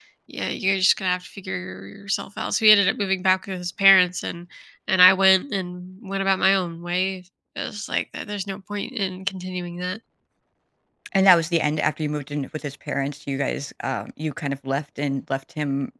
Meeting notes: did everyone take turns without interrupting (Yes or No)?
Yes